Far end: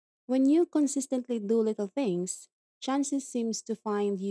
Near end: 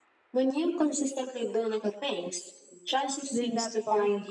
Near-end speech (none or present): present